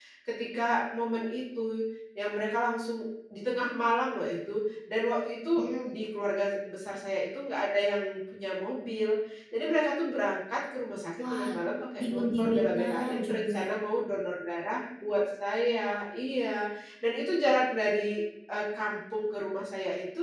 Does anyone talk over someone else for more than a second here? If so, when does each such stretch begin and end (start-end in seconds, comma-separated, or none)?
12.0-13.6